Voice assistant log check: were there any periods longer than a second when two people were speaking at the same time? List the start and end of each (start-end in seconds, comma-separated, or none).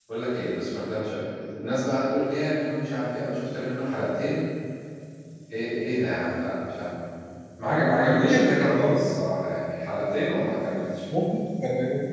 7.6-9.0